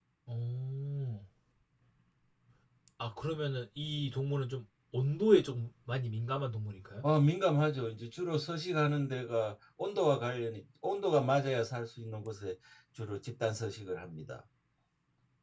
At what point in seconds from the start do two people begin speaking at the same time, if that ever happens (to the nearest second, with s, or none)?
none